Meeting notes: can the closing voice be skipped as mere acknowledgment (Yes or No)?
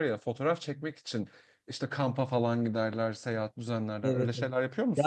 No